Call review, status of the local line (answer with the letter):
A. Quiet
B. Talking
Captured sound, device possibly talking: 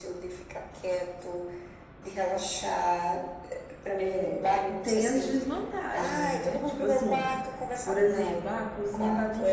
B